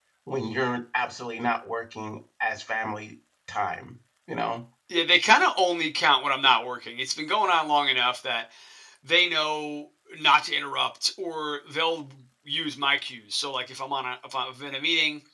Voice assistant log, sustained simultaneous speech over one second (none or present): none